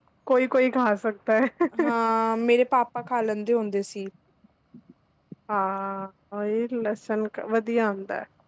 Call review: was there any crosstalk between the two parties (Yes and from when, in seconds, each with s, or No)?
No